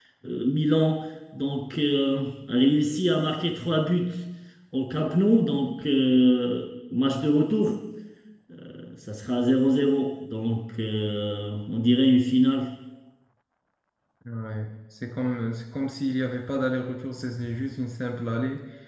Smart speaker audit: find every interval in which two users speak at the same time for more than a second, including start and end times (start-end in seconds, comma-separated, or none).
none